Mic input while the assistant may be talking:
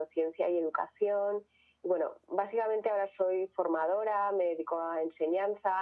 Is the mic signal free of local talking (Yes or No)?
Yes